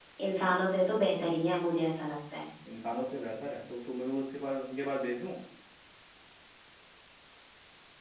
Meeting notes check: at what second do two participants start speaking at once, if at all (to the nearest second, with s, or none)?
none